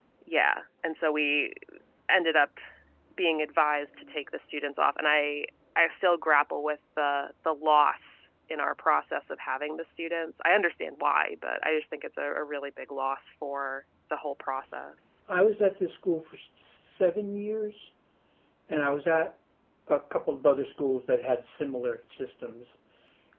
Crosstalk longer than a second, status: none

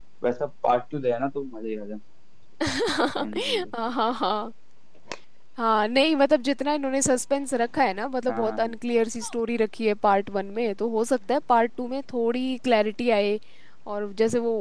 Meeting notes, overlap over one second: none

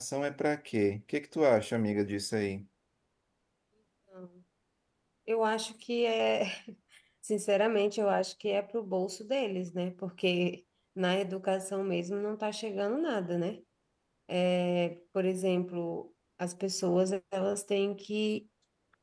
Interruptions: none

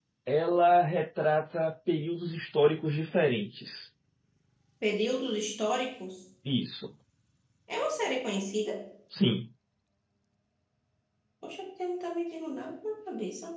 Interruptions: none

